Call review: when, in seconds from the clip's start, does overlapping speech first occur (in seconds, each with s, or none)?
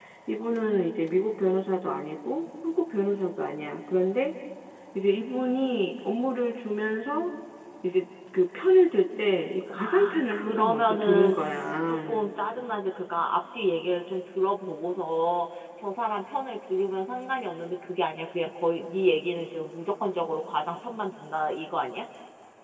9.8 s